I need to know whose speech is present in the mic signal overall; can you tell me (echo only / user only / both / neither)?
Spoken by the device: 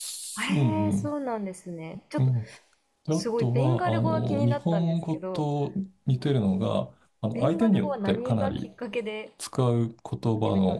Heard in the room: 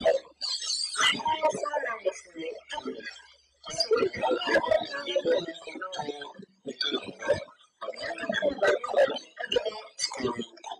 echo only